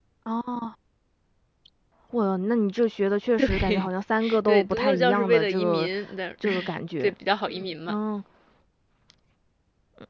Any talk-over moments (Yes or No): Yes